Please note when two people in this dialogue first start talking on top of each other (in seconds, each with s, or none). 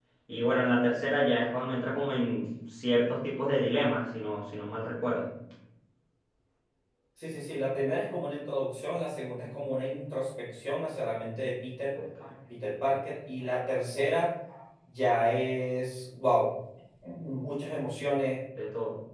none